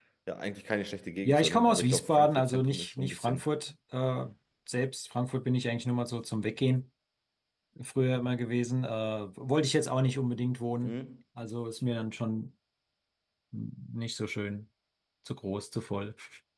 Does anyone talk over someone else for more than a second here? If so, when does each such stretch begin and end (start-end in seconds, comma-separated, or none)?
1.2-3.4